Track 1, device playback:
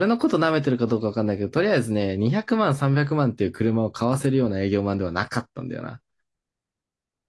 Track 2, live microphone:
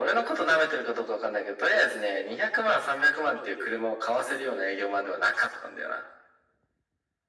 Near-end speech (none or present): none